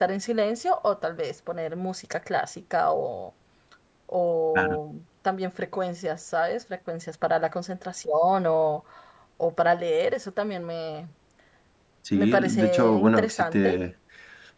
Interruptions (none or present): present